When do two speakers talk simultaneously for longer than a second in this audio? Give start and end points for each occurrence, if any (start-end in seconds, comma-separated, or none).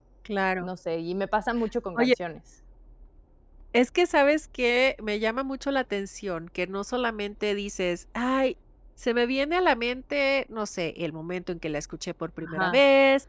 none